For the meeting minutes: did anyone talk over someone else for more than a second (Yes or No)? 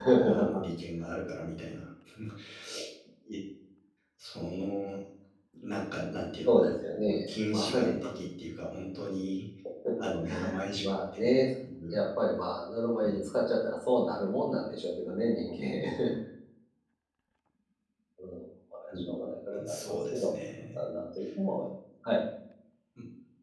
Yes